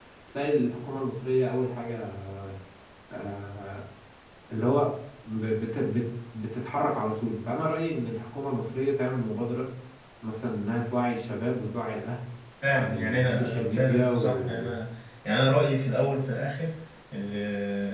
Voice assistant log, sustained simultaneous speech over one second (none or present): present